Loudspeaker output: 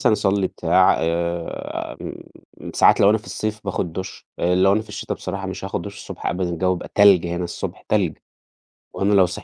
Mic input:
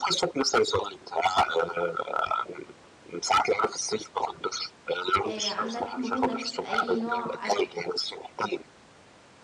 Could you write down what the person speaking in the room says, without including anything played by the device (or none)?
آآ عندك مرونة في أي نوع أكل؟